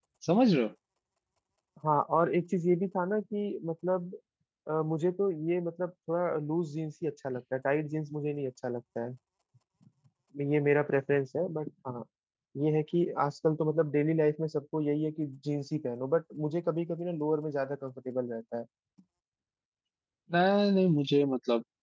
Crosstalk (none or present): none